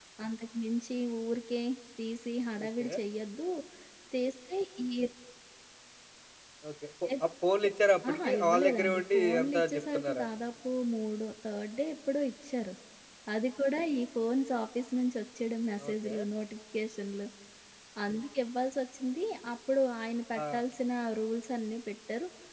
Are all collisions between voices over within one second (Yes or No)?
No